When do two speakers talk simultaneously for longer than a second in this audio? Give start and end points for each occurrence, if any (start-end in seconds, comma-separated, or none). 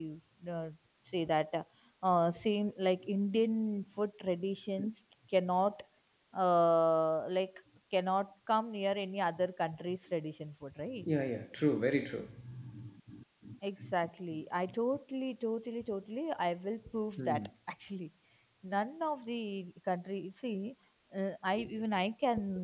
none